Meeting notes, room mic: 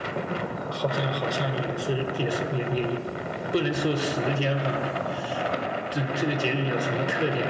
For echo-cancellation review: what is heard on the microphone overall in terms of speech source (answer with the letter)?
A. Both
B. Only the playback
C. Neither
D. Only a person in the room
B